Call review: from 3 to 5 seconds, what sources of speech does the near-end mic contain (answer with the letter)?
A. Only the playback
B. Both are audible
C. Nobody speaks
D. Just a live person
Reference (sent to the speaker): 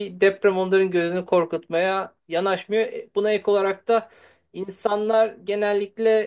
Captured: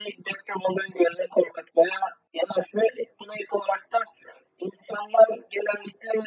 A